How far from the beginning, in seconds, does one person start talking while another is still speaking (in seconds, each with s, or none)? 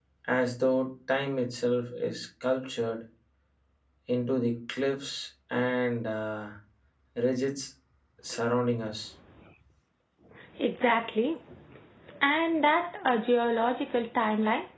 none